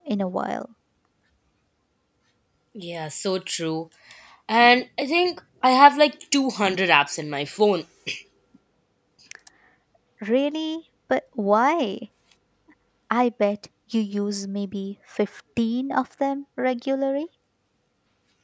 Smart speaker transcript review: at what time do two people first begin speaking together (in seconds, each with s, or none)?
none